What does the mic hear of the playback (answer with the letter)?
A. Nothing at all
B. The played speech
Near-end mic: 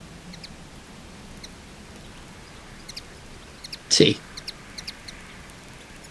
A